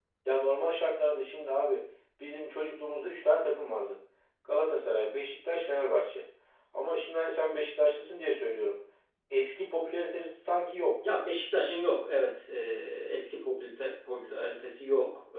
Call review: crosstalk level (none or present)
none